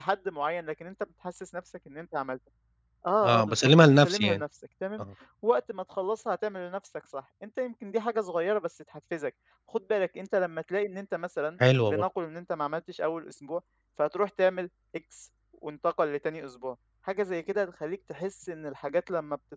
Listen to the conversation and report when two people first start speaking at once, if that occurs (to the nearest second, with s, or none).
3 s